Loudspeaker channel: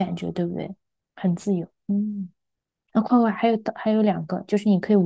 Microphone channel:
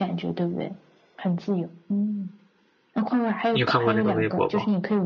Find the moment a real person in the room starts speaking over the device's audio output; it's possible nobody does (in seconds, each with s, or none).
3.5 s